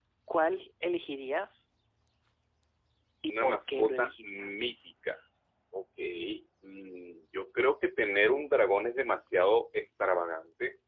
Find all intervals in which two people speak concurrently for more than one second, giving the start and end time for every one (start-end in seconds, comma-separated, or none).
3.3-4.5